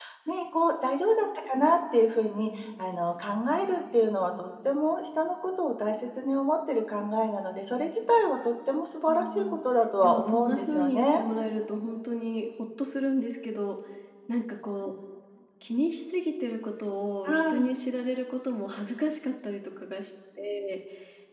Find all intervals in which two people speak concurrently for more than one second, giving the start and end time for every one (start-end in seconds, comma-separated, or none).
10.0-11.2